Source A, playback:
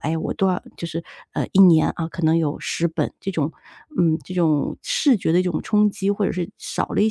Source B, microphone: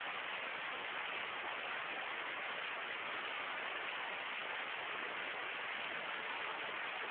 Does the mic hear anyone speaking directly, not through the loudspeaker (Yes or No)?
No